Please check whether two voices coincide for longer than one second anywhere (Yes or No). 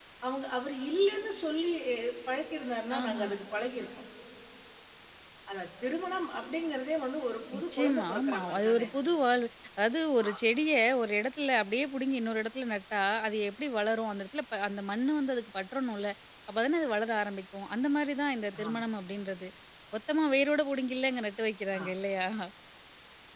Yes